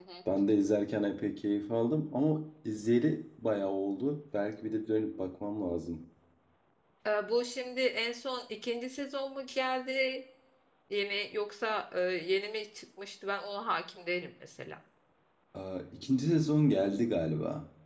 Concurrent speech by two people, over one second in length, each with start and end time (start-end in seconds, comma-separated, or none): none